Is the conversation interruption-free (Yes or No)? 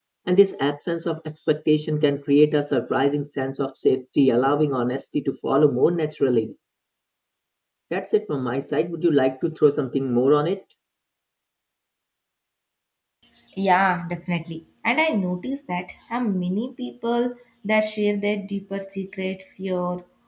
Yes